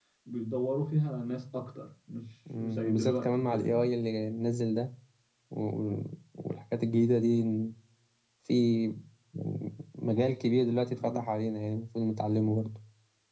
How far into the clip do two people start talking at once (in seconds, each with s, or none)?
2.6 s